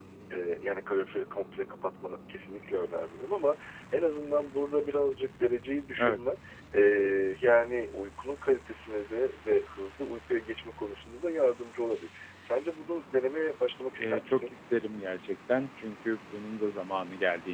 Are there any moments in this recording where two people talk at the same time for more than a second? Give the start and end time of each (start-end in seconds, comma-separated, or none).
none